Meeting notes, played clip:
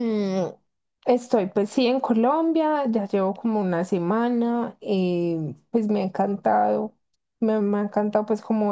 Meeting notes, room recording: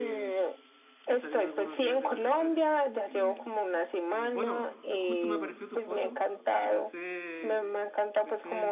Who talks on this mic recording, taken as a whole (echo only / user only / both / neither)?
both